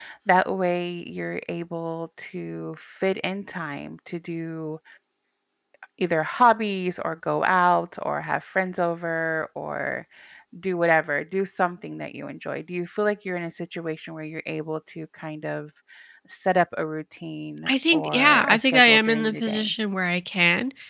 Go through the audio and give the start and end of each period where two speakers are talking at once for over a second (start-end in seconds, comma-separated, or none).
17.7-19.7